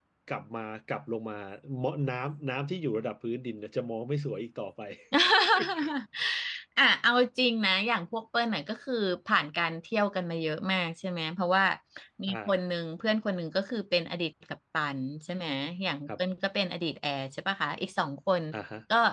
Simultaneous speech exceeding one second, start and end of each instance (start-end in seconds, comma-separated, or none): none